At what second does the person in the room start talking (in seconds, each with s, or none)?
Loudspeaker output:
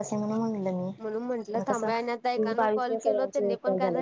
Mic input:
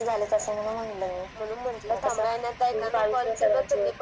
none